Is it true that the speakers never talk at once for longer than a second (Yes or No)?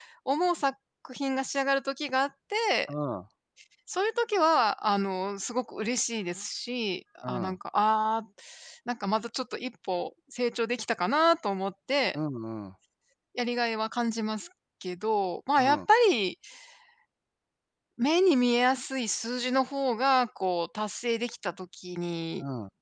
Yes